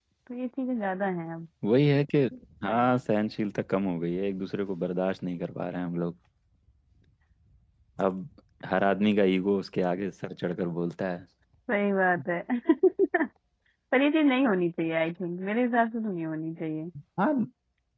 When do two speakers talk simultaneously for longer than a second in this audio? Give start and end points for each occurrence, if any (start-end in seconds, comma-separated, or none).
none